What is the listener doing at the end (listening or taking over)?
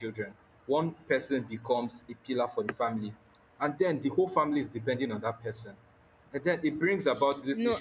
listening